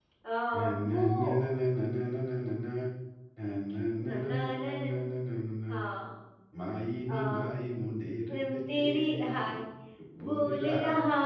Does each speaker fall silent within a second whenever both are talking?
No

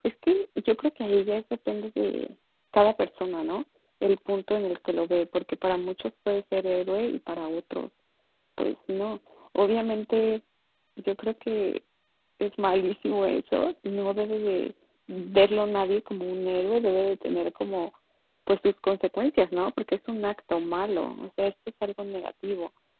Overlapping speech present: No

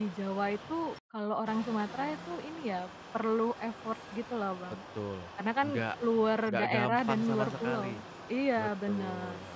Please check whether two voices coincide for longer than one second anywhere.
Yes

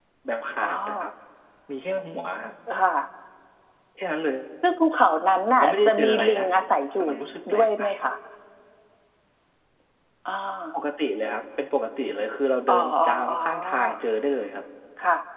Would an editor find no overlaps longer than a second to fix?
No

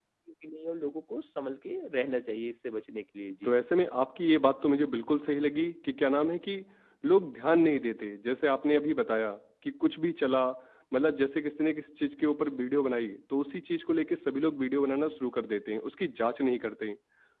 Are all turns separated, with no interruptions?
Yes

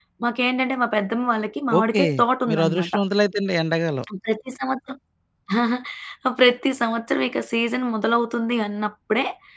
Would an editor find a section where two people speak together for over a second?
No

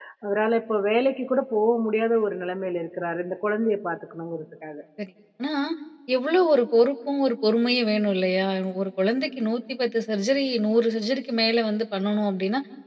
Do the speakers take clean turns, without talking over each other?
Yes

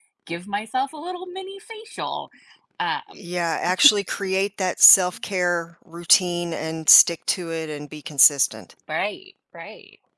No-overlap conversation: Yes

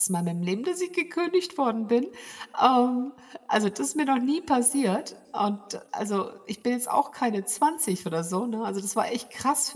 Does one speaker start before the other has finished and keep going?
No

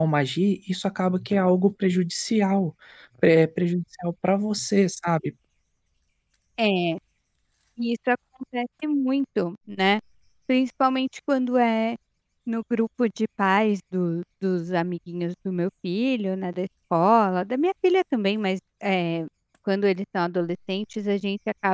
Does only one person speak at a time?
Yes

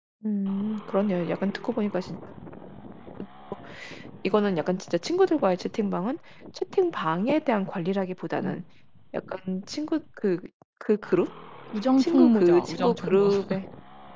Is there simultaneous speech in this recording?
Yes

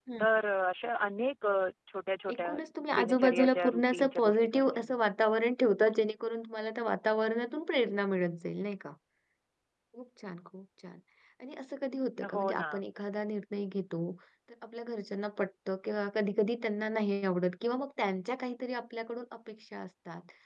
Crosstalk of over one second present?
Yes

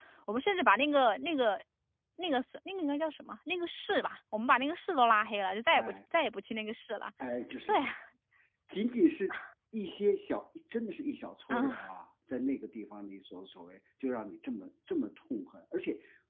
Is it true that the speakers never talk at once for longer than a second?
Yes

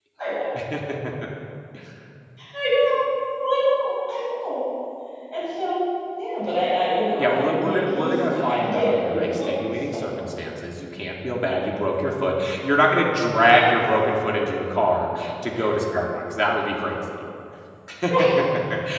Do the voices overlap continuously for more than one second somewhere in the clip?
Yes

